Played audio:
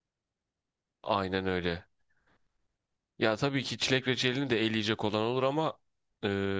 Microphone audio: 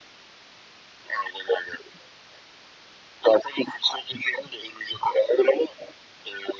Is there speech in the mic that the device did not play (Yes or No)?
No